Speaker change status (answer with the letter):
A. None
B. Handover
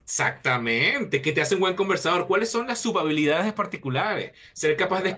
A